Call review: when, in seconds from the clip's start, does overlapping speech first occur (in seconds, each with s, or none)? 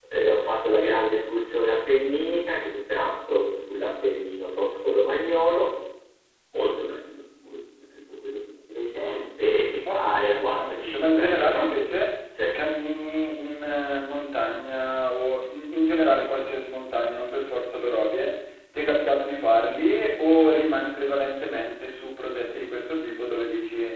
9.8 s